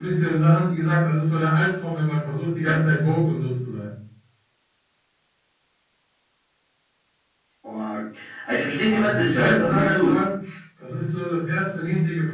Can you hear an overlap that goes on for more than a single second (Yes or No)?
Yes